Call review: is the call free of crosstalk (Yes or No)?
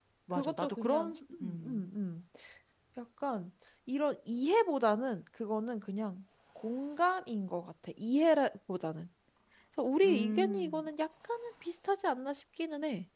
No